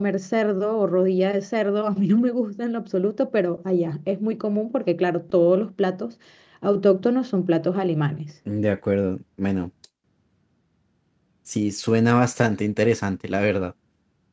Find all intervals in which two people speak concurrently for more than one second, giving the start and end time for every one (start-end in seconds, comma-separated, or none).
none